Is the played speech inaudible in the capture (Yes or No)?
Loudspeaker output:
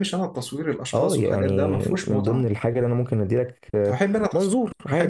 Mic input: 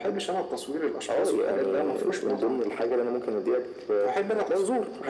No